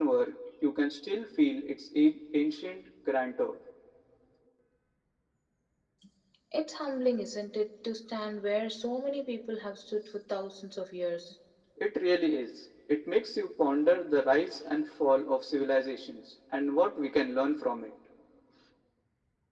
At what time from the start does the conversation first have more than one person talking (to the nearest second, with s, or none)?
none